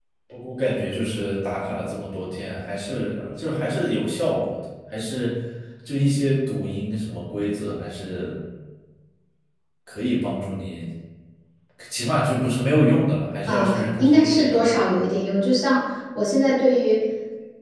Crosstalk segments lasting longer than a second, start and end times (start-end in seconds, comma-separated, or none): 13.5-14.7